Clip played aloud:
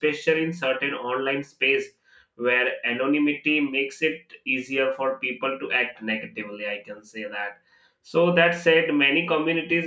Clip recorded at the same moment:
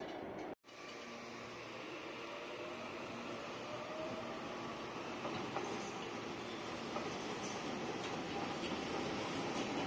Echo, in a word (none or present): none